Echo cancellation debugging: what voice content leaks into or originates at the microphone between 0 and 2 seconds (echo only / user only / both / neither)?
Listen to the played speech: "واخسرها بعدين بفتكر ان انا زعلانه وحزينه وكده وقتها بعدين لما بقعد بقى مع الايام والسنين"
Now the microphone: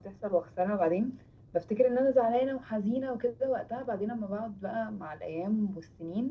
echo only